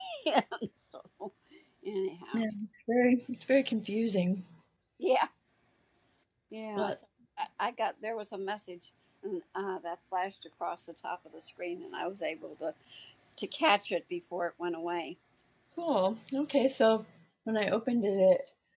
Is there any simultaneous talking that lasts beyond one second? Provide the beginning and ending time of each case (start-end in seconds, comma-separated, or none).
none